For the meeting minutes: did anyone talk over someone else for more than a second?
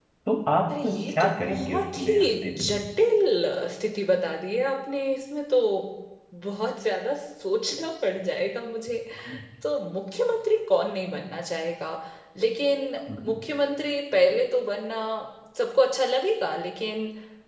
Yes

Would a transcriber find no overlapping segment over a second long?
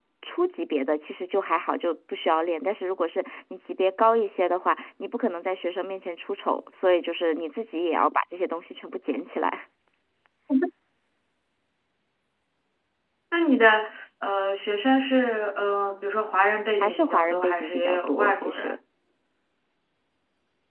No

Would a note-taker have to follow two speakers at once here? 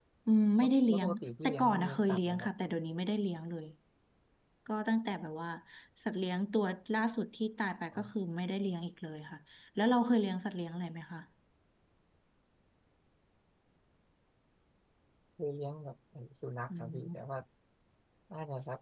Yes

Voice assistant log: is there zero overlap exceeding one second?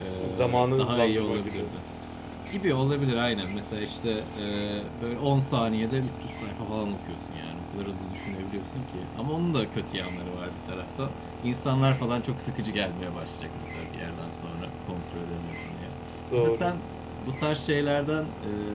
No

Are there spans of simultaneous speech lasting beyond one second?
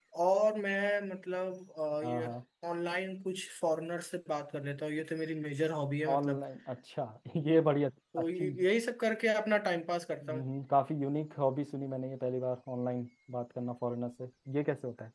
No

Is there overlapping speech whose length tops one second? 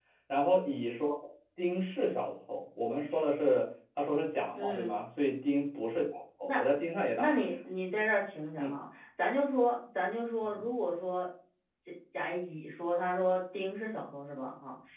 No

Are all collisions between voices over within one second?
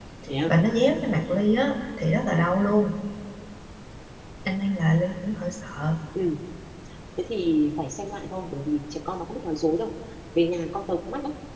Yes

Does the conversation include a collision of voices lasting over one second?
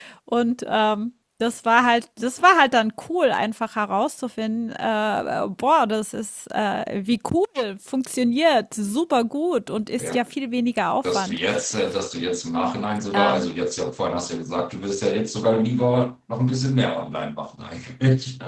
No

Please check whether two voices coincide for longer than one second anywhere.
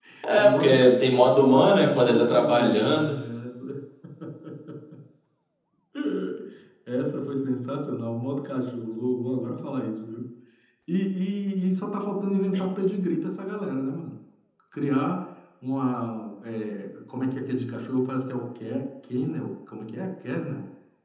Yes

